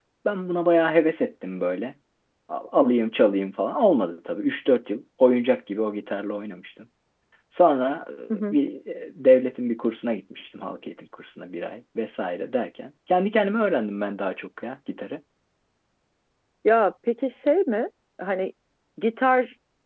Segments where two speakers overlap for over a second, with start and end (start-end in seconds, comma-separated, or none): none